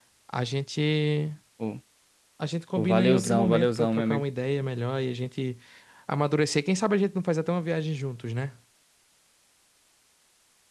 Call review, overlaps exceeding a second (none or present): present